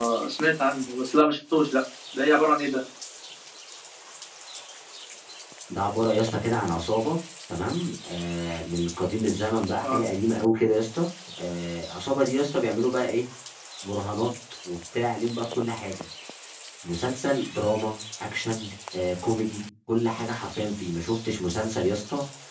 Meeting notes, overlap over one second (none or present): none